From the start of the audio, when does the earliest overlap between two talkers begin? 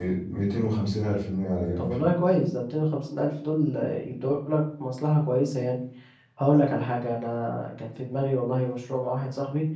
none

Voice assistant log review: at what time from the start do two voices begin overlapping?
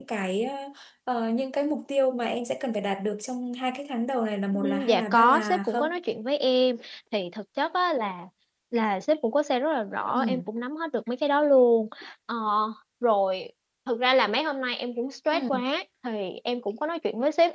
5 s

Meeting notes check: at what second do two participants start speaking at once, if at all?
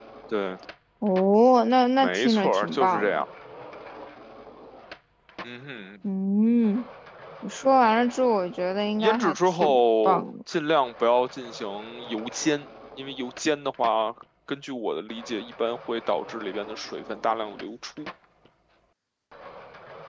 2 s

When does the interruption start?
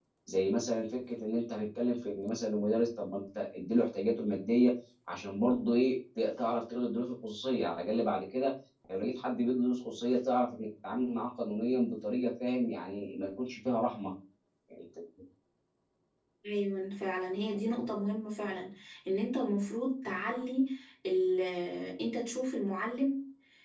none

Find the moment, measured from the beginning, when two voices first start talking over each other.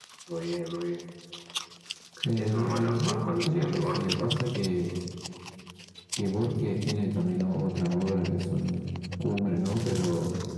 2 s

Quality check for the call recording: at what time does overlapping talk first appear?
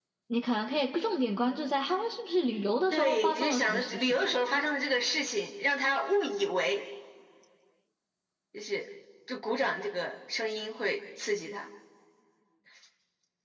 3 s

